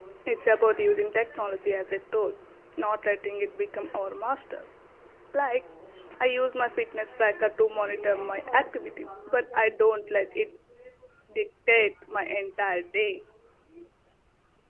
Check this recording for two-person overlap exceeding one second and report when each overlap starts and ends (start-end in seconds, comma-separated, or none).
none